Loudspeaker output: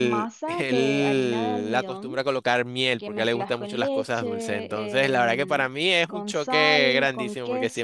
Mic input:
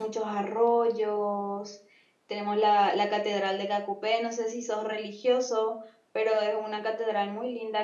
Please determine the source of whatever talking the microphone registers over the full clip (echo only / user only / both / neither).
user only